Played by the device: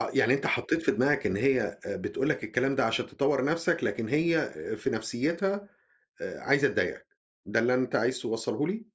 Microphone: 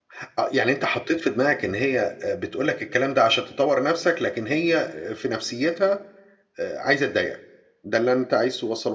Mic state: echo only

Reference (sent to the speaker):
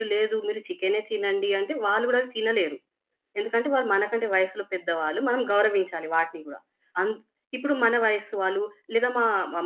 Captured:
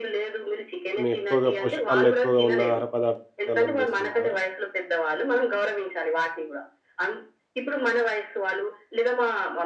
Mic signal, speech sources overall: both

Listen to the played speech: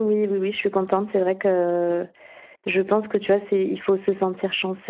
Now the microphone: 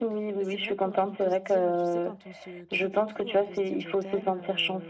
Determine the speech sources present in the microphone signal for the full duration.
both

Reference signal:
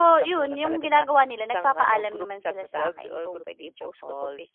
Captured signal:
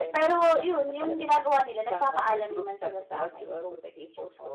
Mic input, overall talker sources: echo only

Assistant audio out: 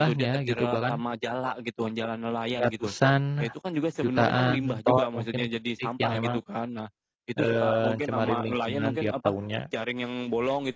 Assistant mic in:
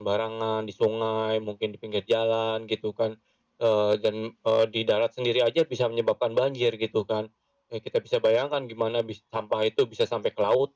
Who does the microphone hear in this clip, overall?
user only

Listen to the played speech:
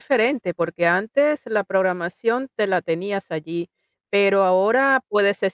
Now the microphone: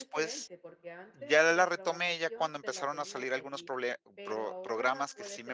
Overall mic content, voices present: both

